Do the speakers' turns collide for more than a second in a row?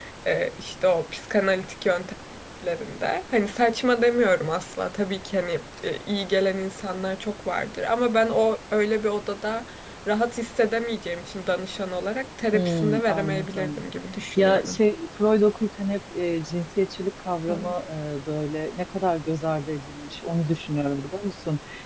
Yes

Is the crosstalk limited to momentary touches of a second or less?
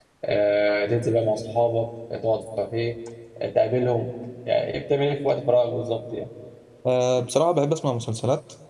Yes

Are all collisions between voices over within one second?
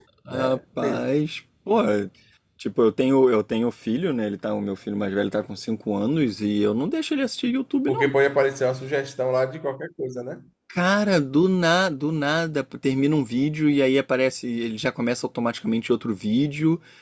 Yes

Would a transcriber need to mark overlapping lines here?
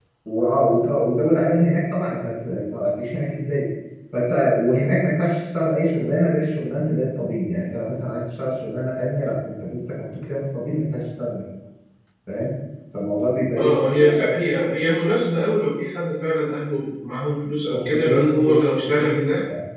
Yes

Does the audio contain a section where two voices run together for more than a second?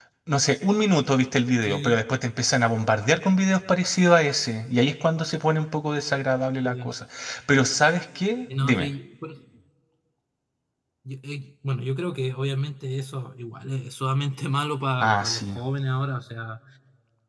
No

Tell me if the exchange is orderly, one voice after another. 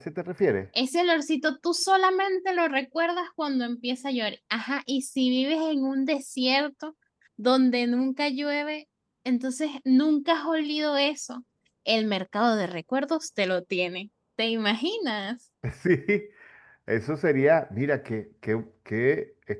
Yes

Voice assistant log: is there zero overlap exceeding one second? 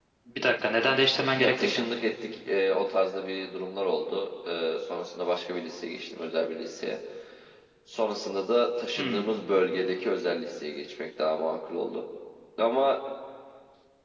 Yes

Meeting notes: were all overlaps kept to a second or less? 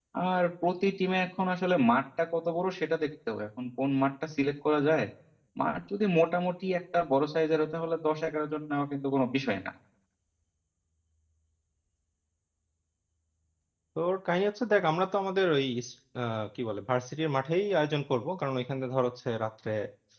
Yes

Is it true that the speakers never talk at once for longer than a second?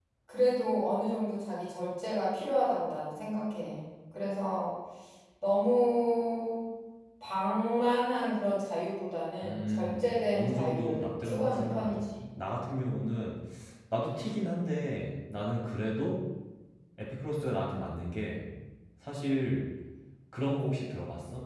No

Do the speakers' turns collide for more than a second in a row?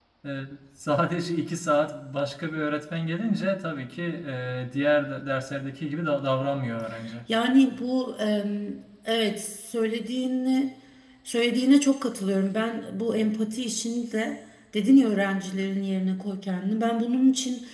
No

